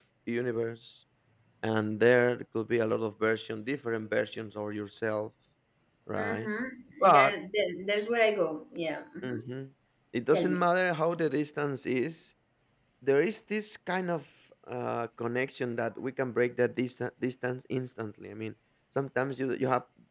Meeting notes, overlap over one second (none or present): none